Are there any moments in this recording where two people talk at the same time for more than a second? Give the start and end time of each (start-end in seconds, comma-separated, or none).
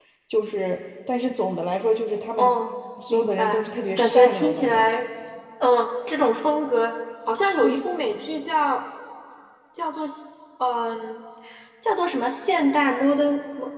3.1-4.9